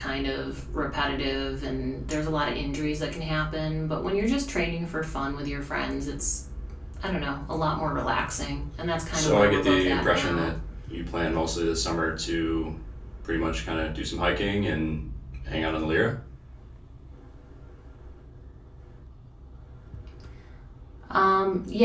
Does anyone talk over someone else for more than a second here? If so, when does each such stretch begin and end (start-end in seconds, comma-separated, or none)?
9.1-10.5